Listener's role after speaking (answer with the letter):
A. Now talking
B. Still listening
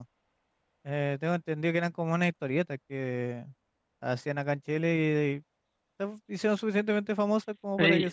A